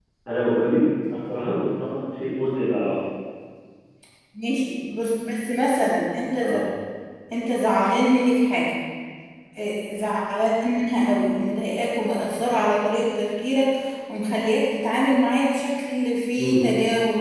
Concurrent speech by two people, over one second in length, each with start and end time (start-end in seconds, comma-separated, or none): none